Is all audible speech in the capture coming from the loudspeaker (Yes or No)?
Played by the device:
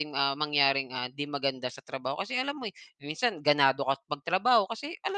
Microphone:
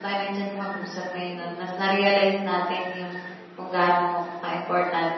No